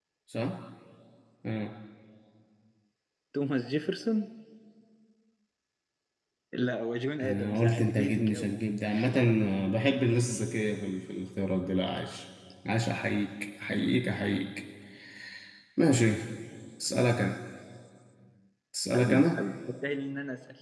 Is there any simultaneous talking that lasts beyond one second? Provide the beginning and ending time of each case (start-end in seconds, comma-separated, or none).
7.2-8.5